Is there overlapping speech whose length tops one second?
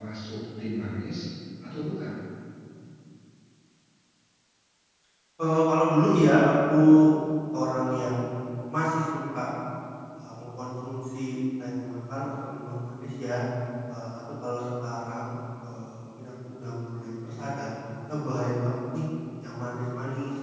No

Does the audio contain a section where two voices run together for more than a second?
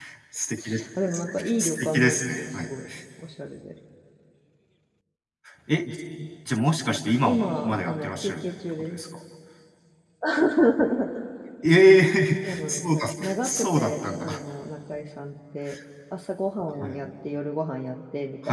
Yes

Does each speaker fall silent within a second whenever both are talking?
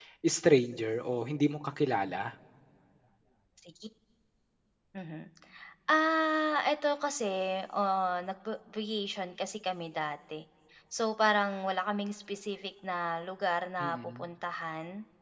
Yes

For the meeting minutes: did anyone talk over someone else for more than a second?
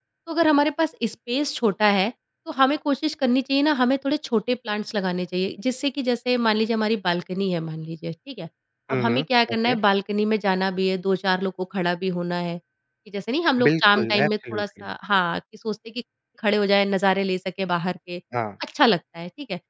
Yes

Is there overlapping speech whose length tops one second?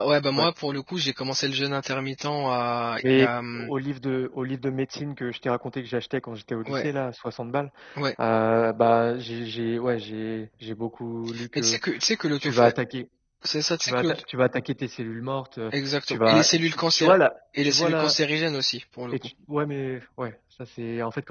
Yes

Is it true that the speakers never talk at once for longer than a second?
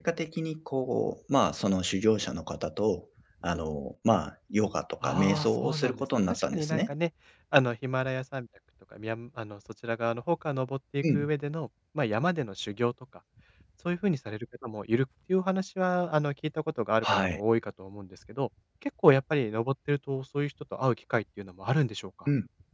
No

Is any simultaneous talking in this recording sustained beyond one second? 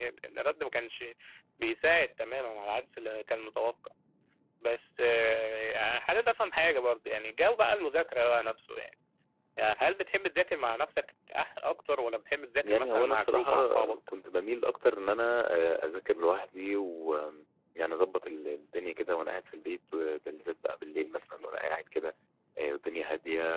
Yes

